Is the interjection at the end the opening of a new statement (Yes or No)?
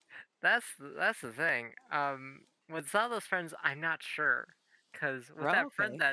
No